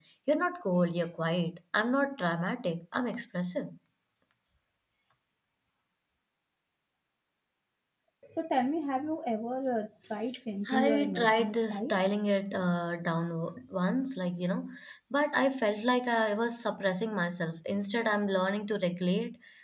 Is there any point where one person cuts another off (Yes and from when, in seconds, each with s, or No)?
Yes, from 10.6 s